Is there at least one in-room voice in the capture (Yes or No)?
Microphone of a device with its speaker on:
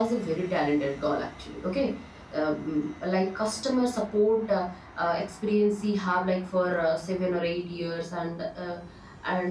No